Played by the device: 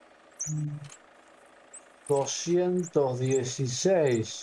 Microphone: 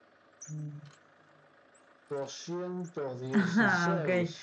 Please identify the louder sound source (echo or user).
user